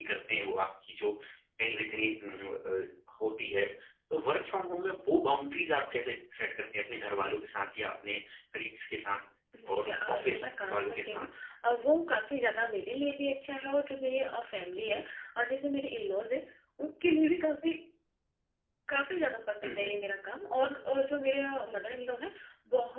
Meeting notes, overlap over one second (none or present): present